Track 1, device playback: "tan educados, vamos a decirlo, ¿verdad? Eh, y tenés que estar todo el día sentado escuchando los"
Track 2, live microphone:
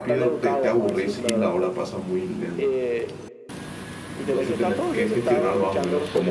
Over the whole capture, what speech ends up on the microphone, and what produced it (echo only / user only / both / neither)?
both